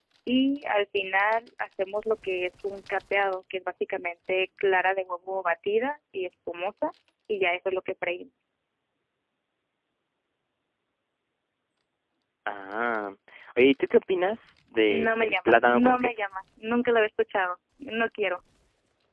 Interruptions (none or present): present